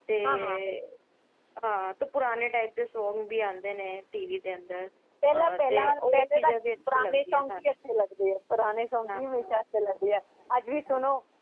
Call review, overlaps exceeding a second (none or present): present